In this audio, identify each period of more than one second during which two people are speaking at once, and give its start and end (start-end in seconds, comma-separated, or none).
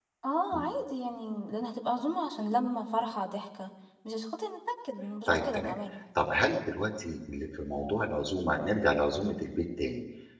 none